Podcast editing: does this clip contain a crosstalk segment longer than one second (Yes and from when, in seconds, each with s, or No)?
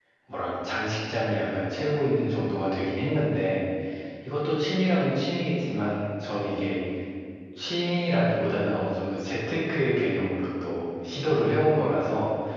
No